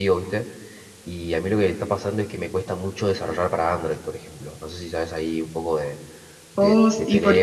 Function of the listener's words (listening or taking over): taking over